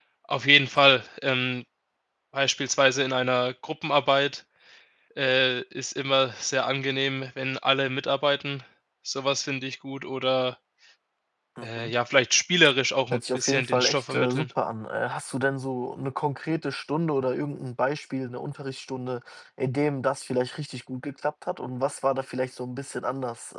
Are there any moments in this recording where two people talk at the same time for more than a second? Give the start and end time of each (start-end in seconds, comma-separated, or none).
13.1-14.4